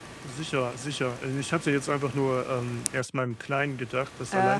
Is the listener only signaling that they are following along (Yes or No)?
Yes